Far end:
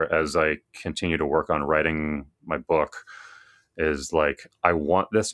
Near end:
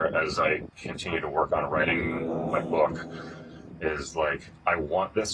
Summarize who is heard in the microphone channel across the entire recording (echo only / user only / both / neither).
both